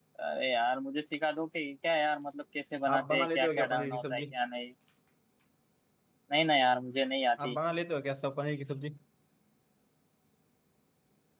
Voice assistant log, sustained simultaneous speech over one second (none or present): present